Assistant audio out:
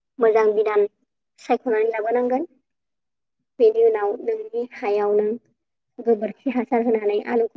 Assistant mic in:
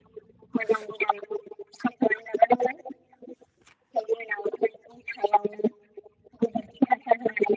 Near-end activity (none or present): none